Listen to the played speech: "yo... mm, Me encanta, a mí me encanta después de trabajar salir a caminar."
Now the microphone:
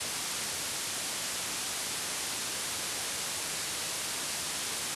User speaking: No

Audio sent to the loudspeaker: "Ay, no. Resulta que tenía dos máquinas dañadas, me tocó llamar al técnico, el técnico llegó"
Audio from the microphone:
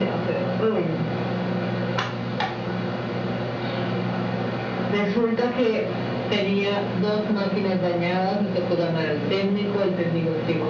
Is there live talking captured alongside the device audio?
No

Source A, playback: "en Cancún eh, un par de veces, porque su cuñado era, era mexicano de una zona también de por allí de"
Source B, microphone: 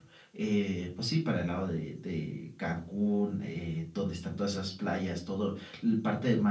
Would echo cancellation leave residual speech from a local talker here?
Yes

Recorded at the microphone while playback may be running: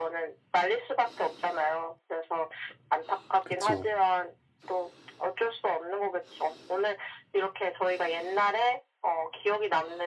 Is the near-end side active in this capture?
Yes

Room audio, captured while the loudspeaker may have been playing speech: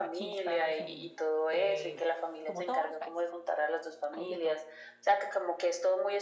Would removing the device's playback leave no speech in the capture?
No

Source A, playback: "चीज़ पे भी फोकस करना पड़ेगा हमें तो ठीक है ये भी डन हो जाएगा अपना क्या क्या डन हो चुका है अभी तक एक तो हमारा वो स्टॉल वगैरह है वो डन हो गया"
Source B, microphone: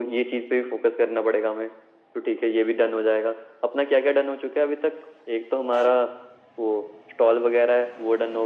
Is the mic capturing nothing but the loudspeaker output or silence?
Yes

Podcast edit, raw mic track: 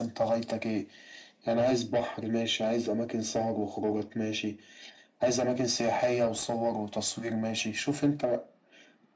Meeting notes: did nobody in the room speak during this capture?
Yes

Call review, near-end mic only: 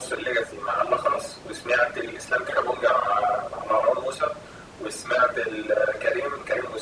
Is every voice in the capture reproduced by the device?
Yes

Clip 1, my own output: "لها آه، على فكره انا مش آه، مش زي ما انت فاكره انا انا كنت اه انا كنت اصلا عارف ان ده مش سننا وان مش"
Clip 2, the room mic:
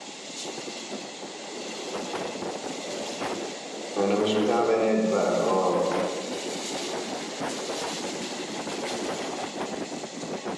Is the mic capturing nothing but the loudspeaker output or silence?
No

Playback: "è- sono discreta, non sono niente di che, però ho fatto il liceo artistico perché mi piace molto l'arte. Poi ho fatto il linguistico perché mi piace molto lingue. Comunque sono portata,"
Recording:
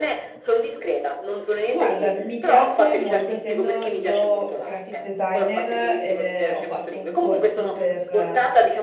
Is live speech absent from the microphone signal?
No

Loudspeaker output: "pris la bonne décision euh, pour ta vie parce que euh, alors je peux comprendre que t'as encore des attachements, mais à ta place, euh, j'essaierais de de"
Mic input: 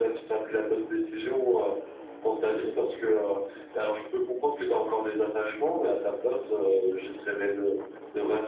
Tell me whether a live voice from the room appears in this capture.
No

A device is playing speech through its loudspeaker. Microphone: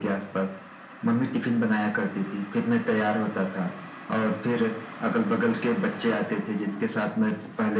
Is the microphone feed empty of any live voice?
Yes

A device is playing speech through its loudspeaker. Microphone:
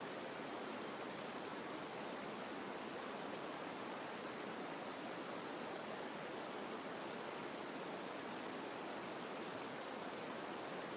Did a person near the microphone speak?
No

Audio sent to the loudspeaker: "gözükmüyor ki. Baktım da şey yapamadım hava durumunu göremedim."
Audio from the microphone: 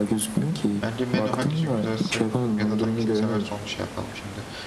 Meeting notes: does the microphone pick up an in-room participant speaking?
Yes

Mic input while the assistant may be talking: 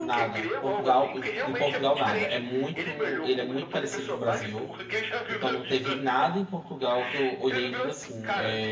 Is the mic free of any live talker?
No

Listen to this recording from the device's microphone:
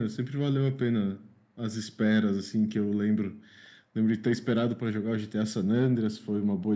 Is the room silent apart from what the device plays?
Yes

